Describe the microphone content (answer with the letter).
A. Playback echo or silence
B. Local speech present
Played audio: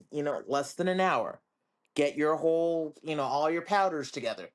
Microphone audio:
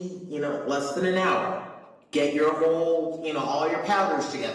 A